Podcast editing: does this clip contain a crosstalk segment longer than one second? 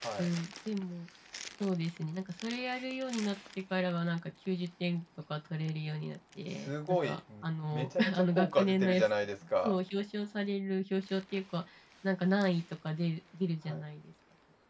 Yes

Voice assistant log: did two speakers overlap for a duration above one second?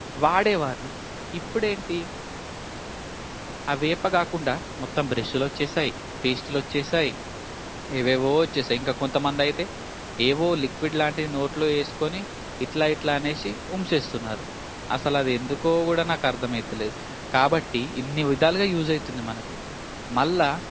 No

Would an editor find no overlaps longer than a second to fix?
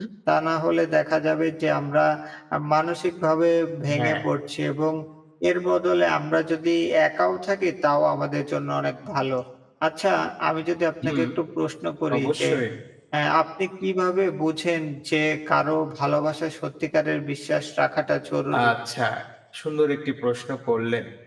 Yes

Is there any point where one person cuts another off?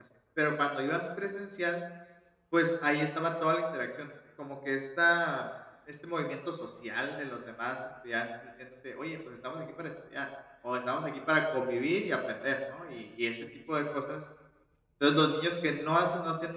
No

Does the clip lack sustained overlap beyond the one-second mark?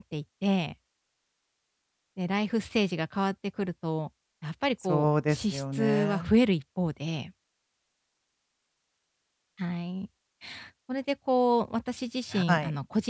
No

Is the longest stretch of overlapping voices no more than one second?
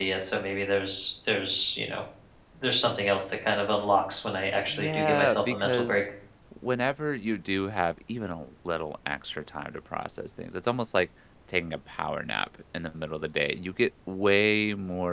No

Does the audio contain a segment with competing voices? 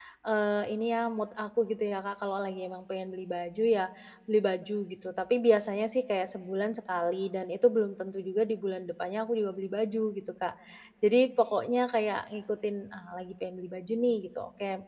No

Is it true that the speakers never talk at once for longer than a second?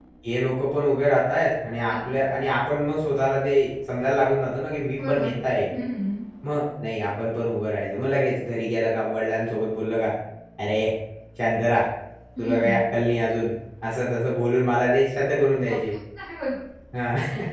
Yes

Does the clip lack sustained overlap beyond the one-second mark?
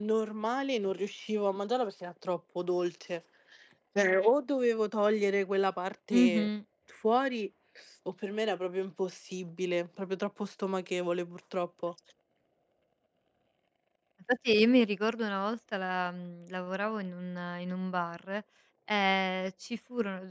Yes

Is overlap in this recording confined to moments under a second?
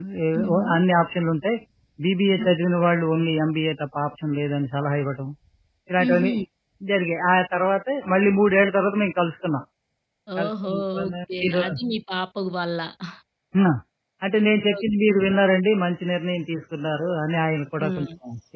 No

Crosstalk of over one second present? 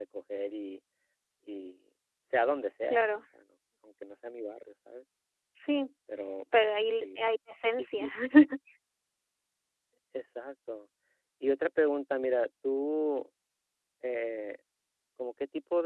No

